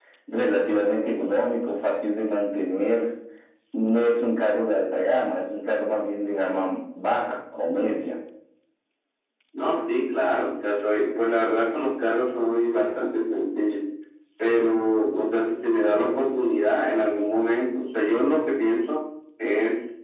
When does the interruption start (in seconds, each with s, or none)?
none